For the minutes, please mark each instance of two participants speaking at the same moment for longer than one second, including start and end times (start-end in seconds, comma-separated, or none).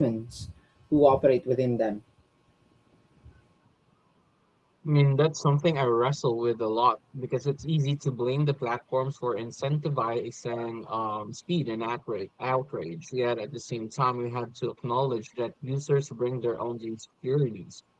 none